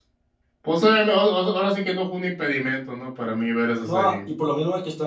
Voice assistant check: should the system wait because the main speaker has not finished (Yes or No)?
No